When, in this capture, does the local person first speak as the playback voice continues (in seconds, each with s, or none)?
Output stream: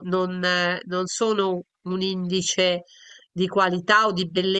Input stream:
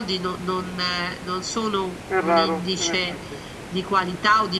2.0 s